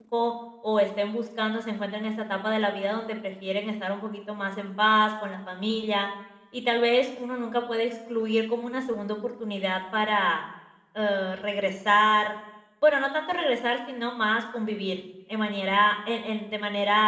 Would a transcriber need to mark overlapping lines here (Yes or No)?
No